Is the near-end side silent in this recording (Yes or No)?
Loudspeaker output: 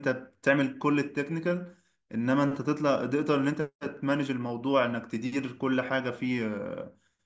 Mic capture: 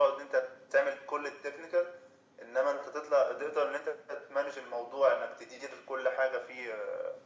Yes